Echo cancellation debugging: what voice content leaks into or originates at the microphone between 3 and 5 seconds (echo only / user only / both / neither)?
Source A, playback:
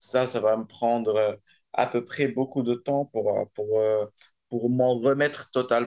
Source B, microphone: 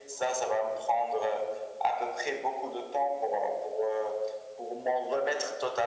echo only